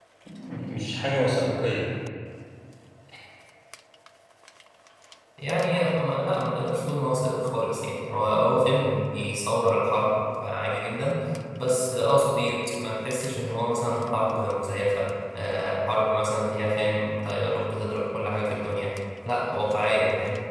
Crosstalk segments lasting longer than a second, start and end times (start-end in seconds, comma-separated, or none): none